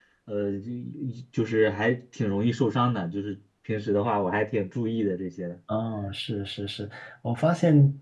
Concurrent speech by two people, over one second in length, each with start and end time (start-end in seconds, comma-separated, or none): none